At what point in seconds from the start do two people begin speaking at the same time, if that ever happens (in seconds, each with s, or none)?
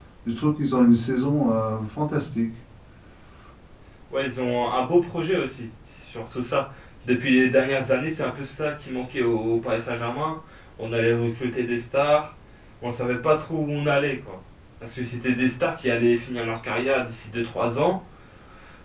none